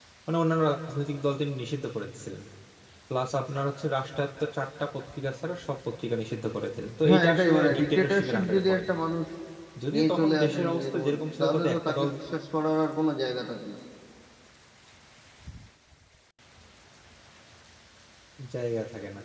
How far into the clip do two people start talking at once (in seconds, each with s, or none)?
7.1 s